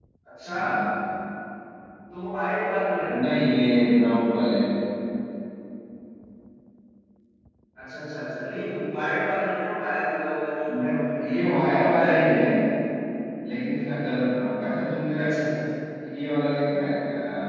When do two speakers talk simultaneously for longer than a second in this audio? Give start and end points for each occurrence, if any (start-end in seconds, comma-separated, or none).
10.7-12.3